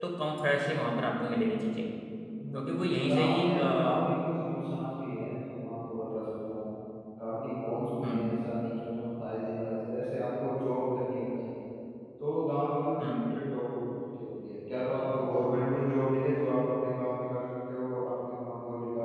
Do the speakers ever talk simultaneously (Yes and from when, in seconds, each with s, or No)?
Yes, from 2.6 s